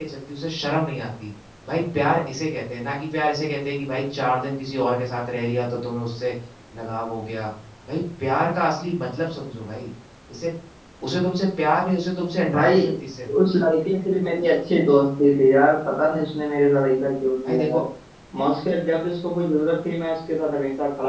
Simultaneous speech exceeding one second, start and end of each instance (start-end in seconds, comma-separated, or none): none